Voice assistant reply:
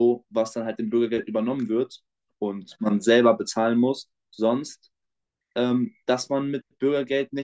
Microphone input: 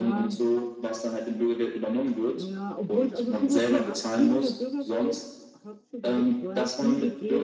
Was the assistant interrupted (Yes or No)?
Yes